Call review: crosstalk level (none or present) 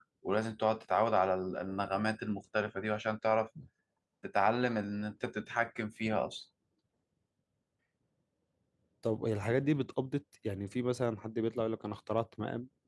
none